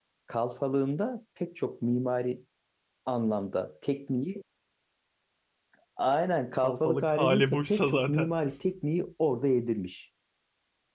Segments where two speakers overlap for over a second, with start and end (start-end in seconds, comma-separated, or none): 6.6-8.4